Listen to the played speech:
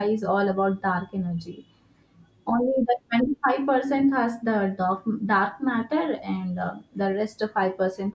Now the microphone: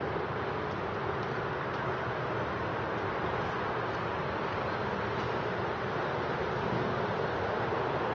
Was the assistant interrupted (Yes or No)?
No